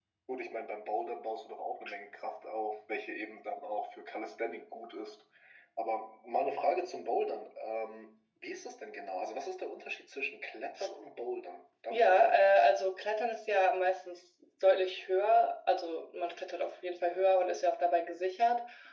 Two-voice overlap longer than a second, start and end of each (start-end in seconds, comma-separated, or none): none